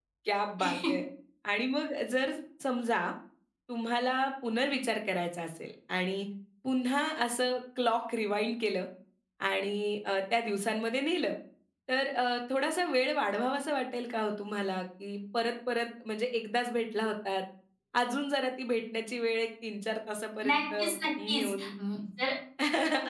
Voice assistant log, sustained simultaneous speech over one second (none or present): none